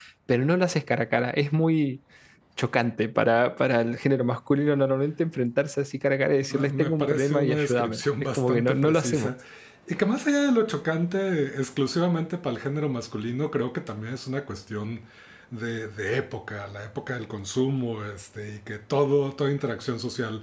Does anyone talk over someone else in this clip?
Yes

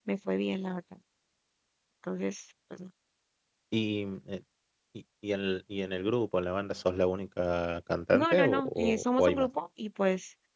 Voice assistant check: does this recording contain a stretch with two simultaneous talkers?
Yes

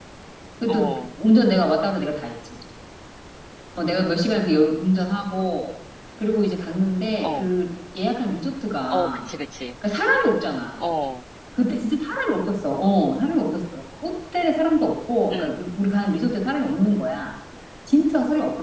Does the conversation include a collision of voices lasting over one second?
No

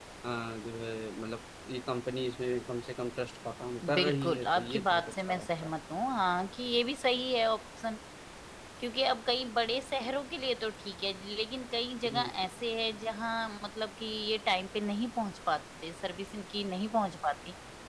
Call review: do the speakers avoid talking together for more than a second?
No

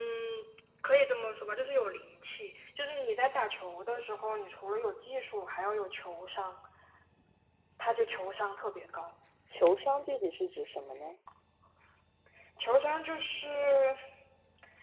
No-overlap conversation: Yes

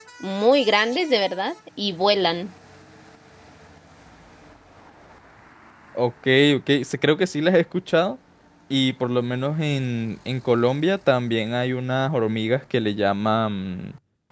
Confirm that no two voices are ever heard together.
Yes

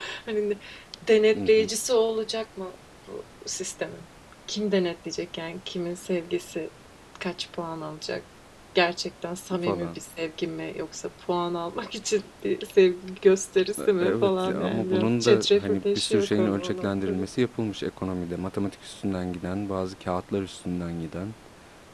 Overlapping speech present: Yes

